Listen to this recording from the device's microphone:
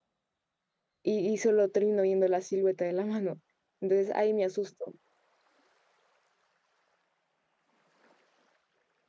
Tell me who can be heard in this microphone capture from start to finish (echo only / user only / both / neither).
user only